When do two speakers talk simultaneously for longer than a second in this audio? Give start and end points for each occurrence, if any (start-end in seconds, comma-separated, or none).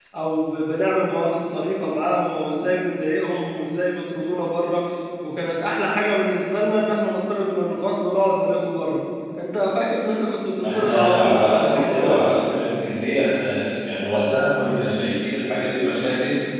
10.7-12.2